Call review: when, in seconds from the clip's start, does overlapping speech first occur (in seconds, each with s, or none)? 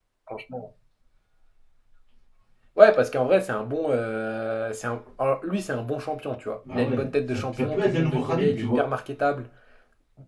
6.6 s